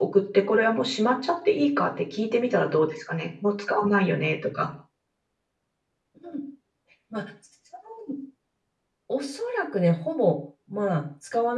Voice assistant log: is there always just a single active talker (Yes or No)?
Yes